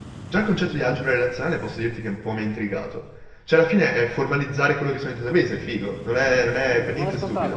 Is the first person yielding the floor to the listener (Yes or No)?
Yes